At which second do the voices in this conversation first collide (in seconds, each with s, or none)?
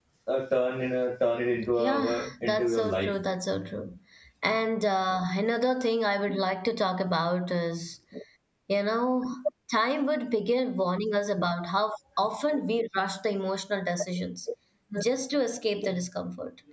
1.7 s